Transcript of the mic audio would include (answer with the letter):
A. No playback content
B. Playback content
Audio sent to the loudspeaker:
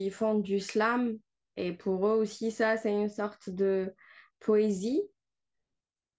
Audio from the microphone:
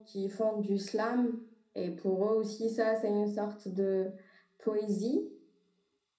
B